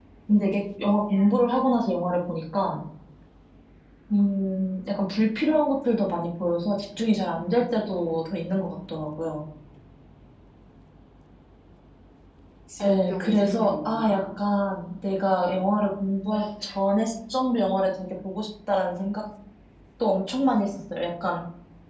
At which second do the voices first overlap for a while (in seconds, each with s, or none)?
12.8 s